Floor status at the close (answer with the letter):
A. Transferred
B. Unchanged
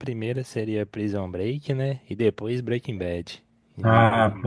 A